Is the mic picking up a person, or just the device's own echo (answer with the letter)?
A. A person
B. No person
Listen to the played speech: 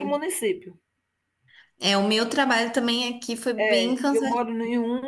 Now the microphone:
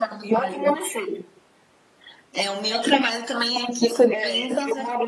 B